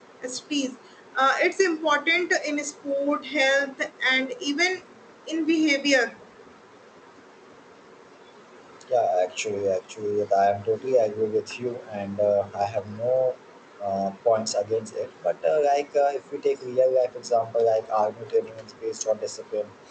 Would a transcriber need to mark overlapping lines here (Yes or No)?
No